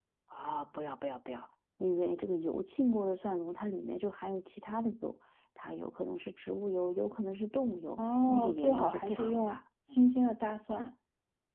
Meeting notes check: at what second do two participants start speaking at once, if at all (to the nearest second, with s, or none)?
8 s